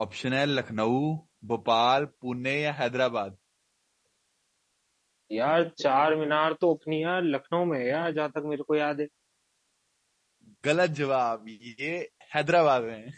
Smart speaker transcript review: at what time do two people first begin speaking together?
none

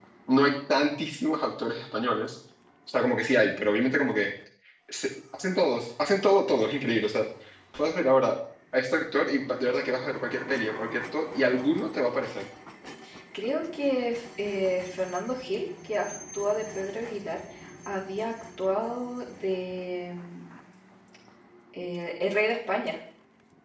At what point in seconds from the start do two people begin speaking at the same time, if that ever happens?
none

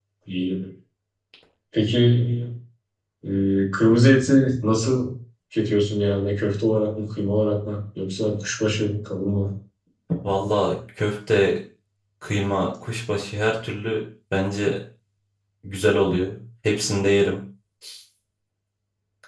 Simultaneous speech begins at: none

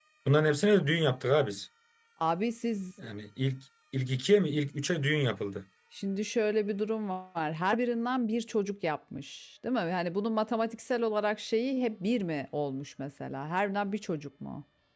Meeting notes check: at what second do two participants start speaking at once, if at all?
none

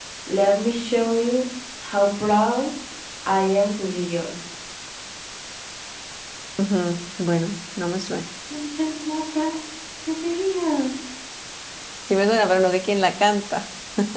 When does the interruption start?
none

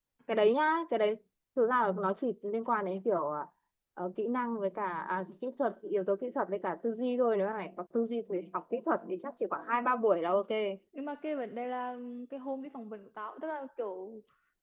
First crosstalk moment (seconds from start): none

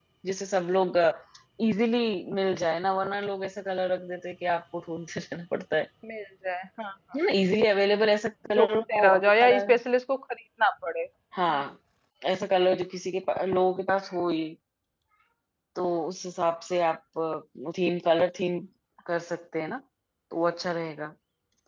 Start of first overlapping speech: 9 s

